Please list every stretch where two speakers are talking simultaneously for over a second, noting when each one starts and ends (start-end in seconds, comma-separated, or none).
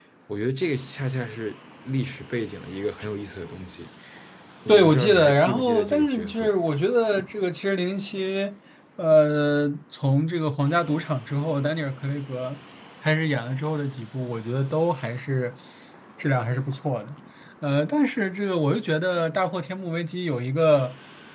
4.7-6.5